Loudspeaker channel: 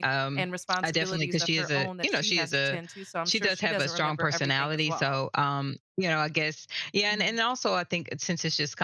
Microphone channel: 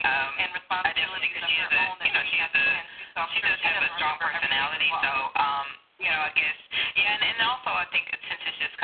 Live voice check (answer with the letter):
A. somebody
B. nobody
B